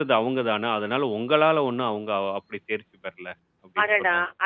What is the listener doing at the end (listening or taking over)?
taking over